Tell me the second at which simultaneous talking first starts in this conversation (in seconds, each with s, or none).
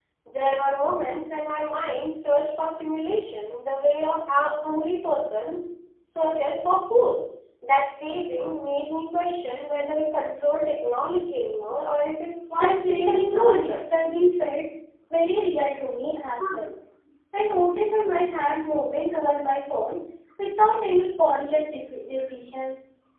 12.6 s